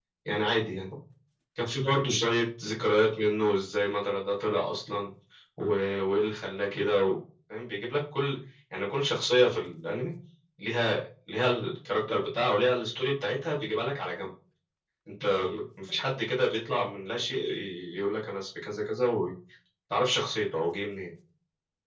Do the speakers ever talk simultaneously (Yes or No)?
No